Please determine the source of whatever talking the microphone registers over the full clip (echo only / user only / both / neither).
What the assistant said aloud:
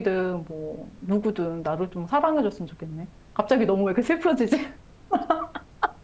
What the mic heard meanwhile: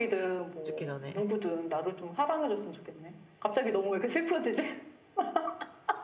both